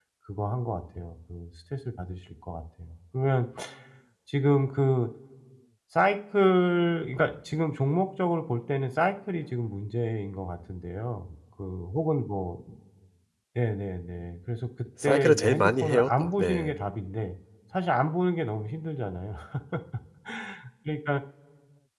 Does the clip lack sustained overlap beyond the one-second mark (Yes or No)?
No